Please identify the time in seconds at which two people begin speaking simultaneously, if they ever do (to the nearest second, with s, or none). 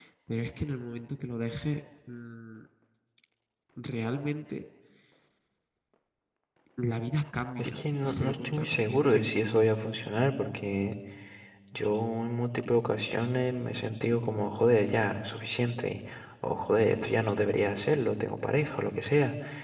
8 s